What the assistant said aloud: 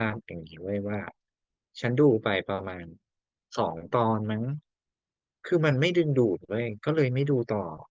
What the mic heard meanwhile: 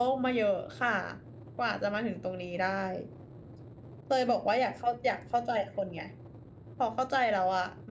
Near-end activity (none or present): present